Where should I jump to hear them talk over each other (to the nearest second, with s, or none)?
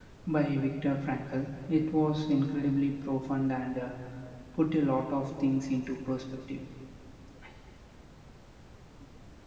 none